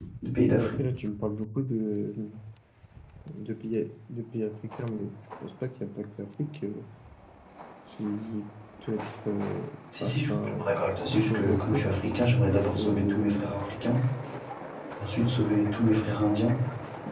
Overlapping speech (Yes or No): Yes